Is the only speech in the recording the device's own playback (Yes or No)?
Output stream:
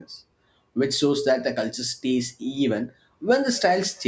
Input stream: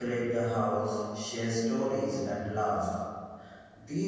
No